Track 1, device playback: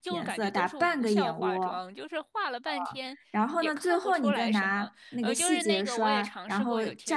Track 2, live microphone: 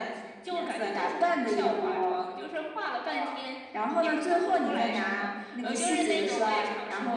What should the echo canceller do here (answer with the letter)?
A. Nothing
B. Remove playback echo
B